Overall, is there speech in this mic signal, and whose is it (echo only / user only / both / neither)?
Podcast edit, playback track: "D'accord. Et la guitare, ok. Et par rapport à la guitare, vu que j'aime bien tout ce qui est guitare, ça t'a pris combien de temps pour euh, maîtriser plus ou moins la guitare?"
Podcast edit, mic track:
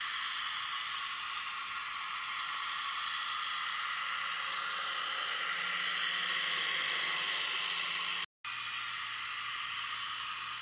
neither